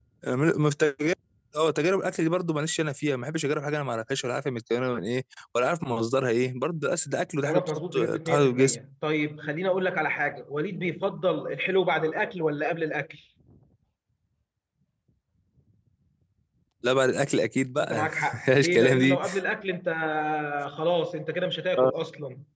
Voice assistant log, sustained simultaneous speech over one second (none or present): present